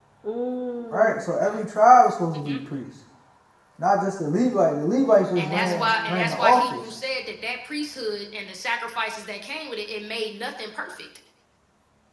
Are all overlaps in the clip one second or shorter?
No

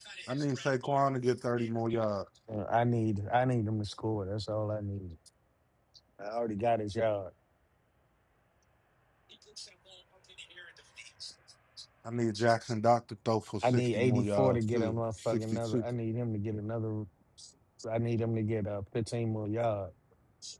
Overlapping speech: Yes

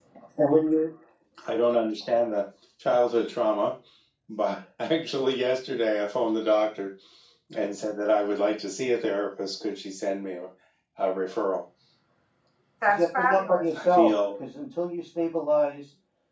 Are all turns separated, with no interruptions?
No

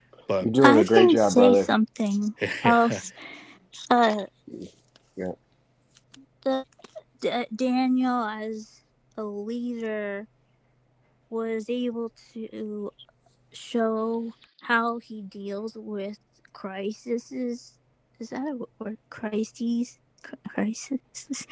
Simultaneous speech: Yes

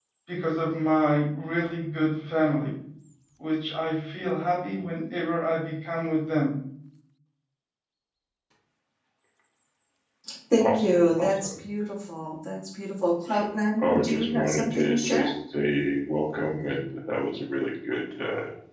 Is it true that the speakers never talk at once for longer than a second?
No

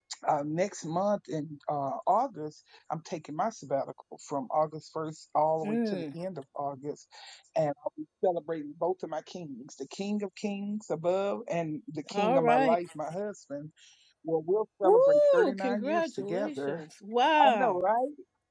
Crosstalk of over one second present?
Yes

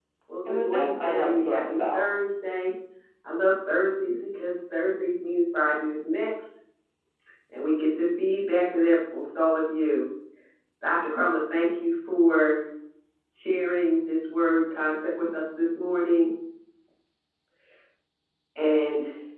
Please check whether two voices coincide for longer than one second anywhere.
Yes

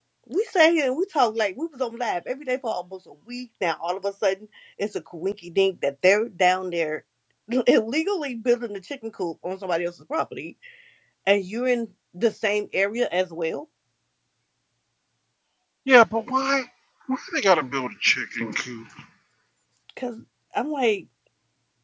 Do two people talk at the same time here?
No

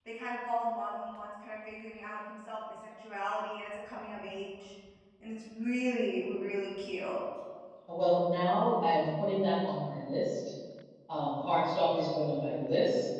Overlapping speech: No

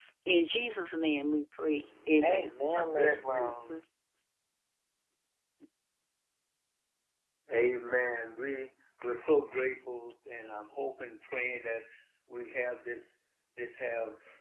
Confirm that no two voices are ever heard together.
No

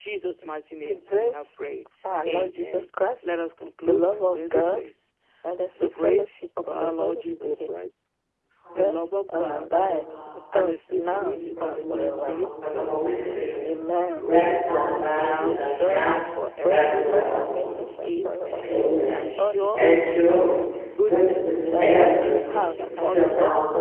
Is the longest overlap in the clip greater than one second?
Yes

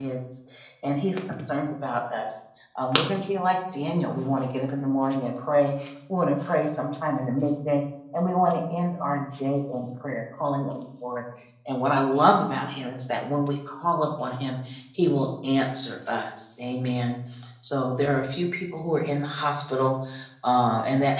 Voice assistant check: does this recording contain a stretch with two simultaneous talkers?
No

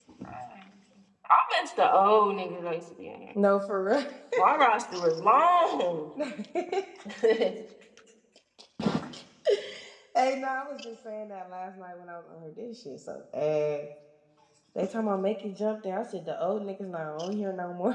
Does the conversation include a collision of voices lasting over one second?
No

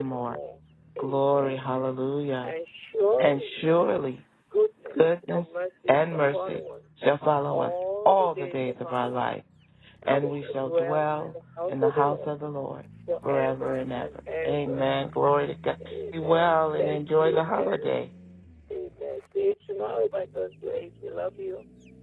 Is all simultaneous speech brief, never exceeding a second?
No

